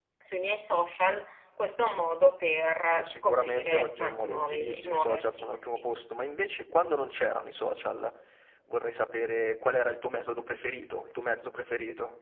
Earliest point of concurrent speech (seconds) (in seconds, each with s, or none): 2.9 s